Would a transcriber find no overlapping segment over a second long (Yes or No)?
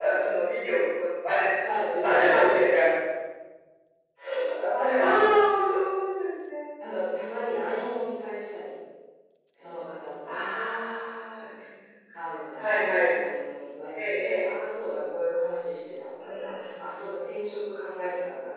Yes